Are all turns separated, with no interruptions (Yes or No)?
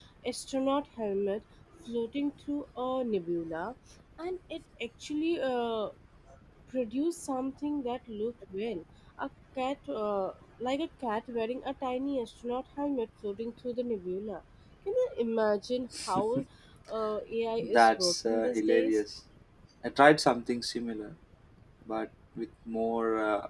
No